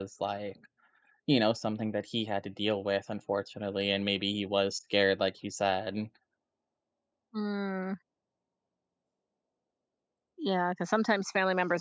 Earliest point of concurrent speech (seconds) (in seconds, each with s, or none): none